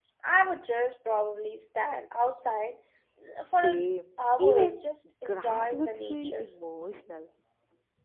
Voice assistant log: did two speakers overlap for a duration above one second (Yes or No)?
Yes